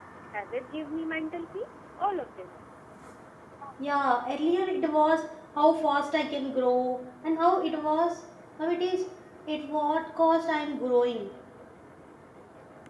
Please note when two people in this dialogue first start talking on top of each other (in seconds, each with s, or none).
none